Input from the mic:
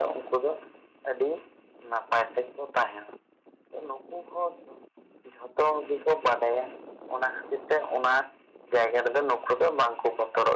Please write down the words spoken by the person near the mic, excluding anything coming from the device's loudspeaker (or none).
none